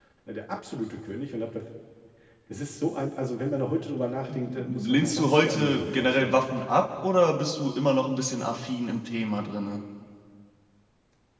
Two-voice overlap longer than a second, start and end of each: 4.3-6.6

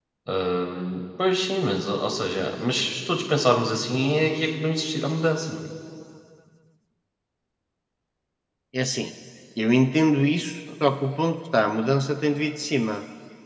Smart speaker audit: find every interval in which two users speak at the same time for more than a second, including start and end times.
none

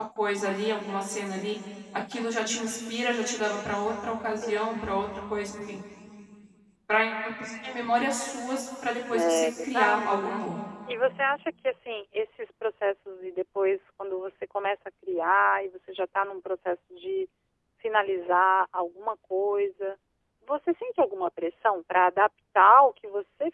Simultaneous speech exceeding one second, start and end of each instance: 9.1-10.4

